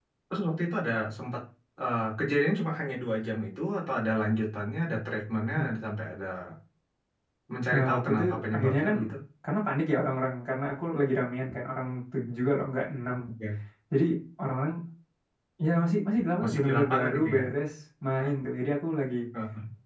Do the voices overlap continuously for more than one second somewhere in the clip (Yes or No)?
Yes